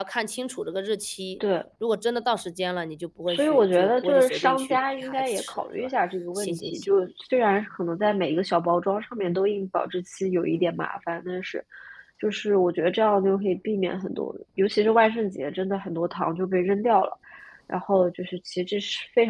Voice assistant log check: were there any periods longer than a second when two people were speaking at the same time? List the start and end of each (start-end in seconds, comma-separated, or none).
3.3-5.9